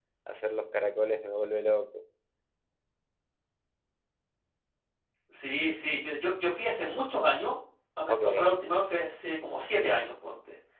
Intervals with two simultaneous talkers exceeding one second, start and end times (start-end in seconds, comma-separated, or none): none